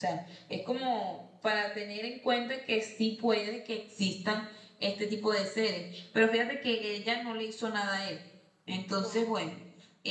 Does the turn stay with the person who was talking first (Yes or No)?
Yes